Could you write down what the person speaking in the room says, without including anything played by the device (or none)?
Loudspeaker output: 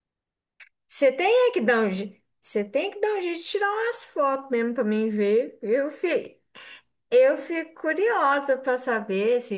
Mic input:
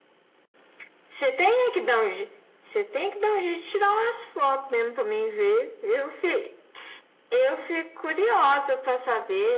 none